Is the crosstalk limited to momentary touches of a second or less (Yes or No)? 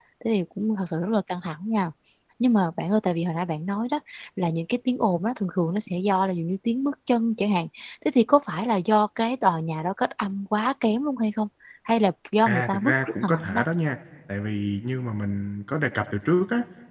No